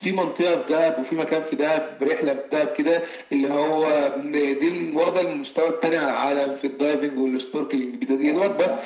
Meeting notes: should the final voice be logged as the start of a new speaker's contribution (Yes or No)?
No